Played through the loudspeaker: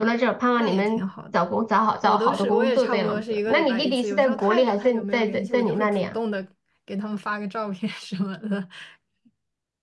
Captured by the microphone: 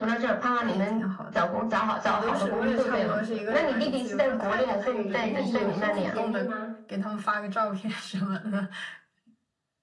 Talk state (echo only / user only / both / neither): both